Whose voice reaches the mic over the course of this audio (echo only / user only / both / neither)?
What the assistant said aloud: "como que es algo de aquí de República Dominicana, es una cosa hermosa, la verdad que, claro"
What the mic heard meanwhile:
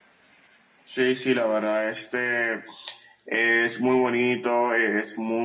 user only